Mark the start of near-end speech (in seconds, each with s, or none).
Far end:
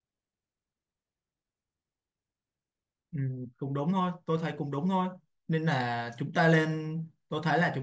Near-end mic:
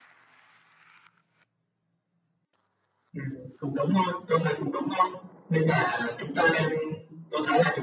none